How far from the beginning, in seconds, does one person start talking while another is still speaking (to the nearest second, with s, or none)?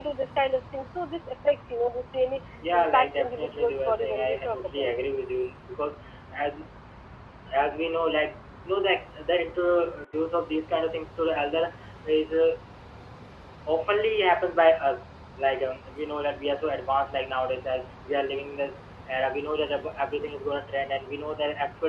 3 s